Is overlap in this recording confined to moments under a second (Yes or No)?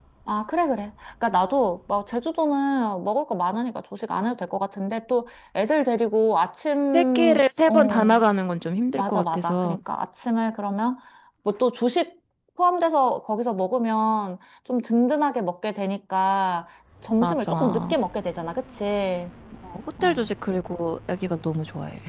No